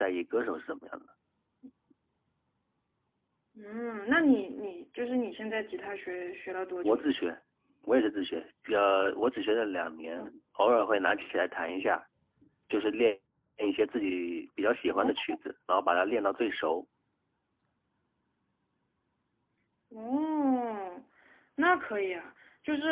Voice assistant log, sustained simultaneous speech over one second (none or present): none